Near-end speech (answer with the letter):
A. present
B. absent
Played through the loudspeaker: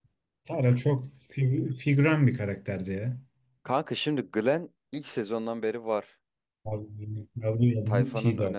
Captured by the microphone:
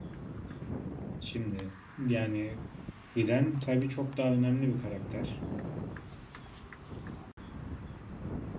A